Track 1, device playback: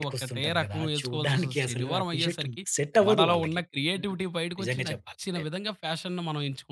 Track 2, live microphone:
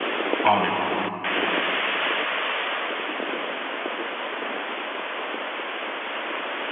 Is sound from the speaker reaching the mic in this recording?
No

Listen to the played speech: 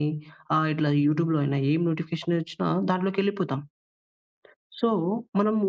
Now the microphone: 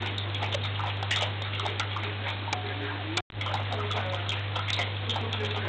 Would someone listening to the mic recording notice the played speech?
No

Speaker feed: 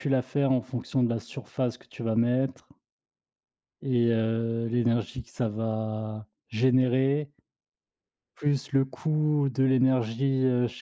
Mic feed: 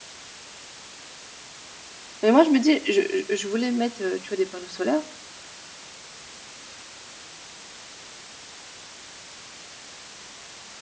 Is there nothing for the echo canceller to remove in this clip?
Yes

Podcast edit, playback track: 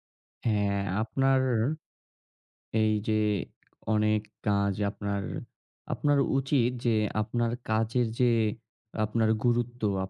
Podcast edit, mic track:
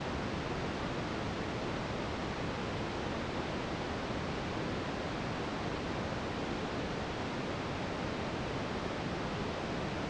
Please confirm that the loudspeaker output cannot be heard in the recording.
Yes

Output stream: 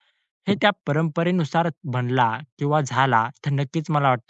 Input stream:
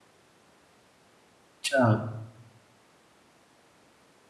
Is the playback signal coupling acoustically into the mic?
No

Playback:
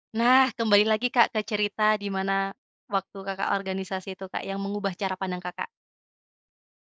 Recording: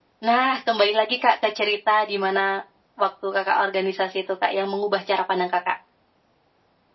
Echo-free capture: No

